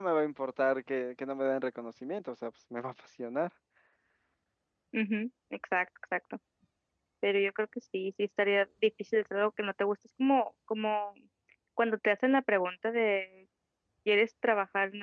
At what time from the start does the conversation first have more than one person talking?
none

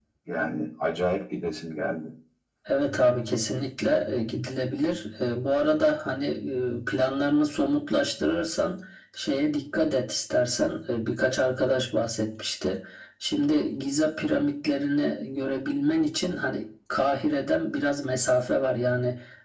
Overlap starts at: none

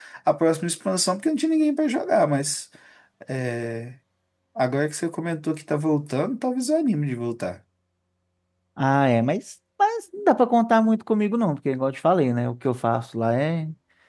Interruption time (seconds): none

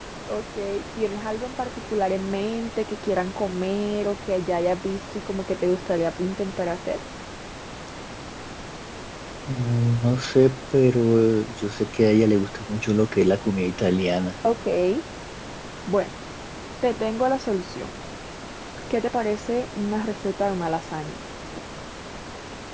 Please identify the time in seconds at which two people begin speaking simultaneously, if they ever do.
none

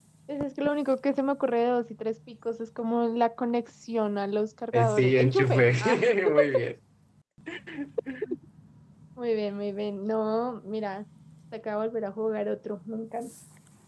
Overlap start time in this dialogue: 4.7 s

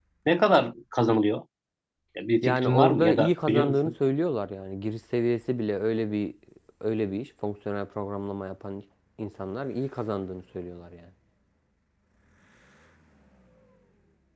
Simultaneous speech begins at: 2.4 s

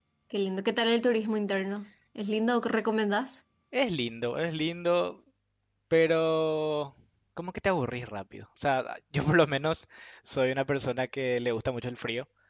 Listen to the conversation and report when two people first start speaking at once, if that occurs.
none

